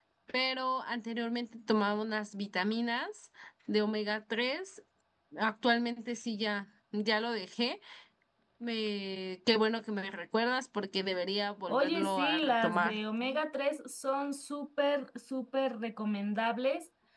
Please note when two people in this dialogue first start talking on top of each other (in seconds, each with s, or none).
11.7 s